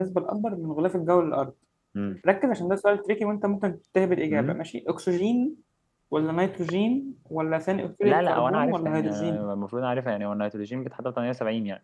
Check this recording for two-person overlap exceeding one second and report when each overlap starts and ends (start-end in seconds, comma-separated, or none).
8.0-9.4